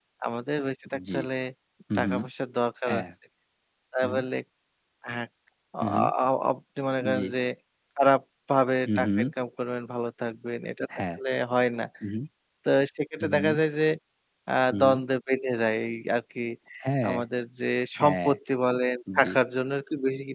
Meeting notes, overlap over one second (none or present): none